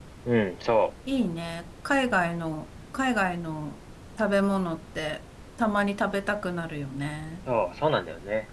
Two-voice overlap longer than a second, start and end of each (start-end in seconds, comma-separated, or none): none